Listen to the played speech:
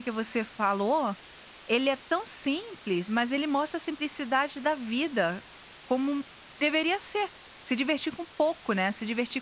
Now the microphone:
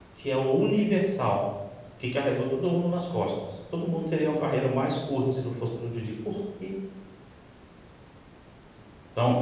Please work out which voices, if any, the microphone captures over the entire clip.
user only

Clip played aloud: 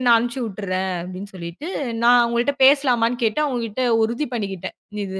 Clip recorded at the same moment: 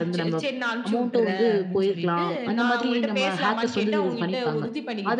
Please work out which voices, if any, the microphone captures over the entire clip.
both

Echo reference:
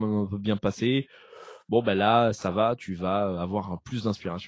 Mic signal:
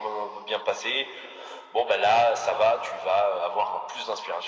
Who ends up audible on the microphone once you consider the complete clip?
echo only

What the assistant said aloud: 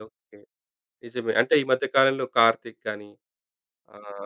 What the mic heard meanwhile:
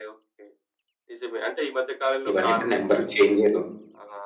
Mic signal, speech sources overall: both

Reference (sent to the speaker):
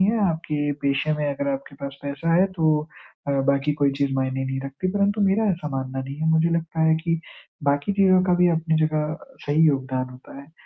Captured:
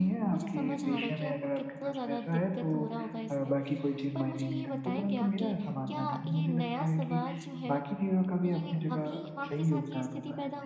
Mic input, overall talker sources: both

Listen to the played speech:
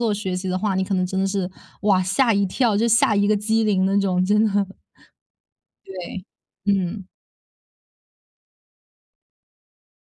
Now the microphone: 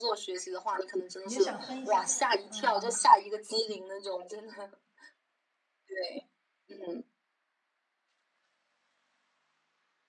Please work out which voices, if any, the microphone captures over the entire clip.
both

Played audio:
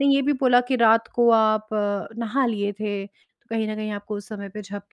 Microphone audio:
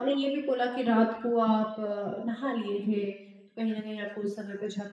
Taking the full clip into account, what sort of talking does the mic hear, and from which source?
echo only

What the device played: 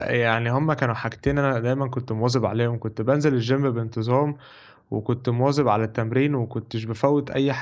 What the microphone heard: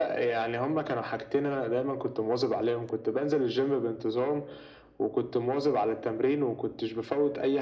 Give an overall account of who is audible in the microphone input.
echo only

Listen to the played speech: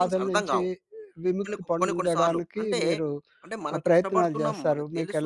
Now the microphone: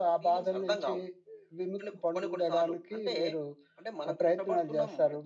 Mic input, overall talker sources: echo only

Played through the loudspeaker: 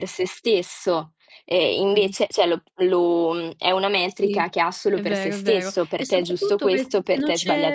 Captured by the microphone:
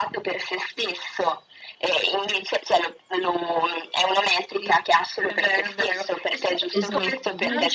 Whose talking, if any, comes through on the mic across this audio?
both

